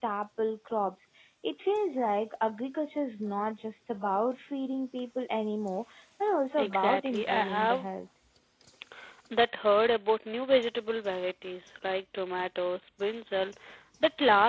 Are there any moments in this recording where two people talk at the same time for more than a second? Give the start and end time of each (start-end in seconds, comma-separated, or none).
6.6-7.9